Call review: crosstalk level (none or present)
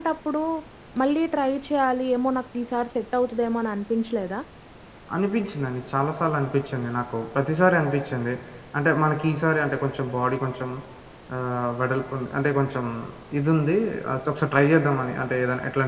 none